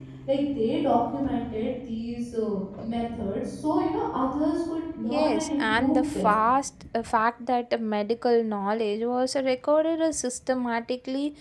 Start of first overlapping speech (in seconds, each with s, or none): 5.1 s